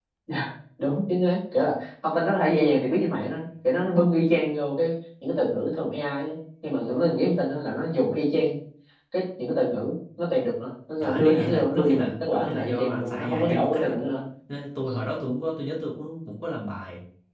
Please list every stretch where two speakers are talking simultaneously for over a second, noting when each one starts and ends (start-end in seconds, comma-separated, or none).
11.0-13.9